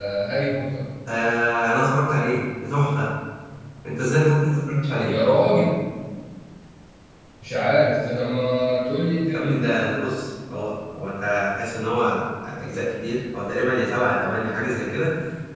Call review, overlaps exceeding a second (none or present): none